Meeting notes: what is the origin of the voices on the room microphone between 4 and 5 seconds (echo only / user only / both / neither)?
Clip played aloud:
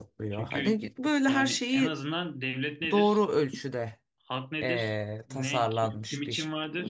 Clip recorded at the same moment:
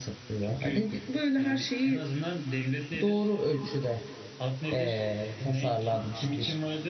echo only